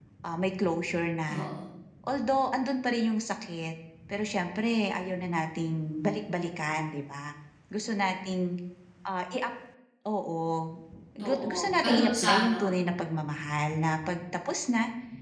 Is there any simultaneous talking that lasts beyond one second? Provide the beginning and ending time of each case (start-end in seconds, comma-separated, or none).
11.2-12.7